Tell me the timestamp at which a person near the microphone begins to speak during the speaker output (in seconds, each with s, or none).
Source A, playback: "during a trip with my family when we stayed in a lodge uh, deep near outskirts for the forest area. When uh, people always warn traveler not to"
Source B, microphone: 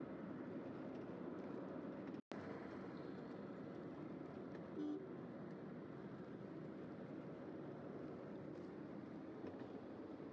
none